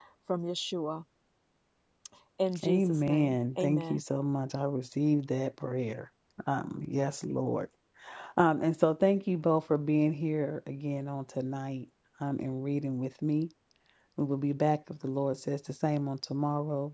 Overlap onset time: 3 s

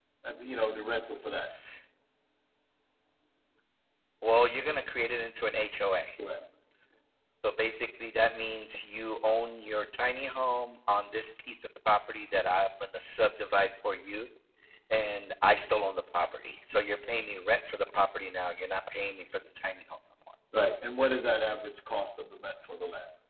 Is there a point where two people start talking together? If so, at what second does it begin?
none

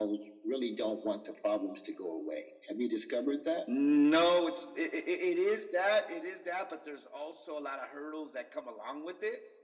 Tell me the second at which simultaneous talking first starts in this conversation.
none

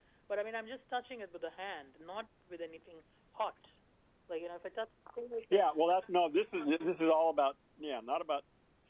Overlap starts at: none

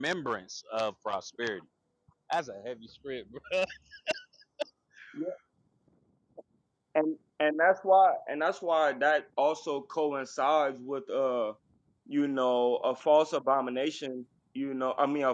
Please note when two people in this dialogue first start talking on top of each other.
none

